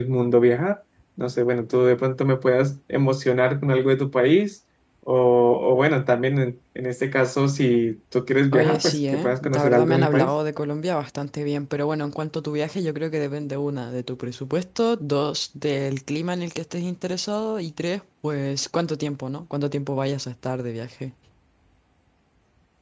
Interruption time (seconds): 8.5 s

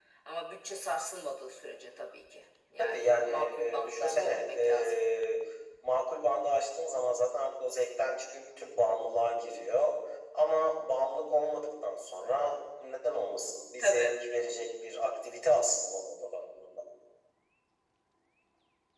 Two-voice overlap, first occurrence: 2.8 s

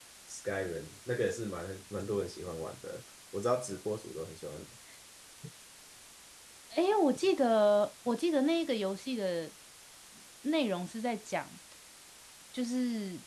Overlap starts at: none

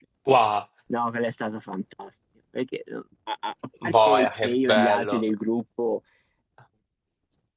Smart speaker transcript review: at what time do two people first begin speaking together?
3.9 s

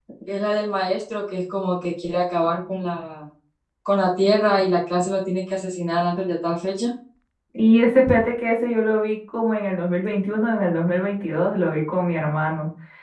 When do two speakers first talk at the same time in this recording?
none

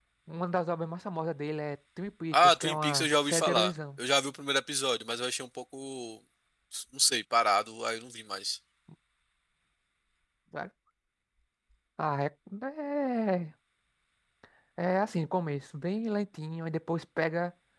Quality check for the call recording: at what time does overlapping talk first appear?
2.3 s

